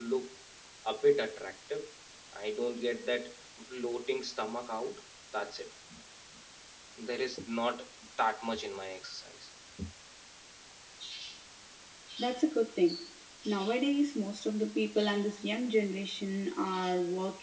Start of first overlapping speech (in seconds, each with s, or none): none